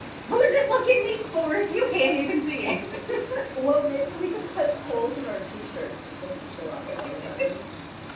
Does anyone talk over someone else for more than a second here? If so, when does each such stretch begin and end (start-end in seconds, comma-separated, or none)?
none